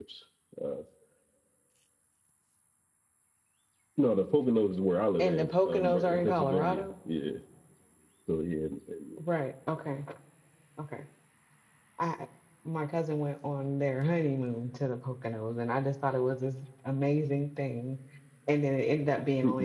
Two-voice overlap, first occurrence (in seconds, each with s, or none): 5.2 s